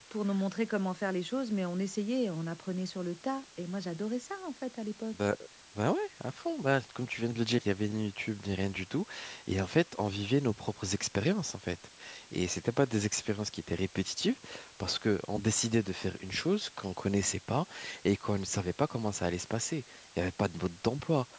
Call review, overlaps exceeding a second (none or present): none